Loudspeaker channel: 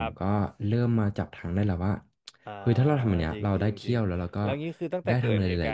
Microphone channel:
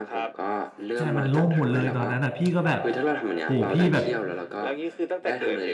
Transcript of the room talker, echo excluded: ใช่มันล่มหมดเลยตอนนั้นอ่ะพี่ก็แบบโหพี่แบบ

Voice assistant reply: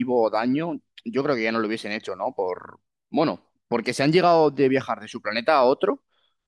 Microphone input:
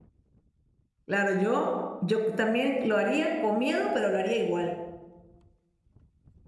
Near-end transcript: Claro, yo, yo también lo haría con miedo, pero lo haría igual.

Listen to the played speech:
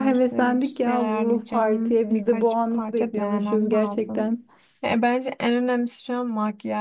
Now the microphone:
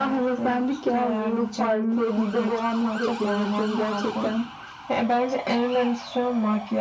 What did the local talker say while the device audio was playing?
none

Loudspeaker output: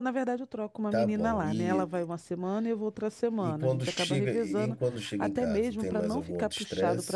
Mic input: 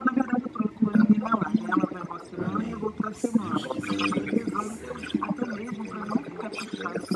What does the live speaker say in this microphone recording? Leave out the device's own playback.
amém. Se Deus quiser, vai dar tudo certo.

